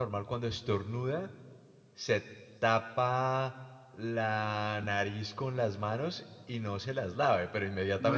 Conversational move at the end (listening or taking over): taking over